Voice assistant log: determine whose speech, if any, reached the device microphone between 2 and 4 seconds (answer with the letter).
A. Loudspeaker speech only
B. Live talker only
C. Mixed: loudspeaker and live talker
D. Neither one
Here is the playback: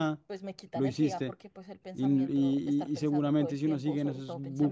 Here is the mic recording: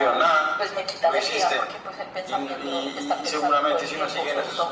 A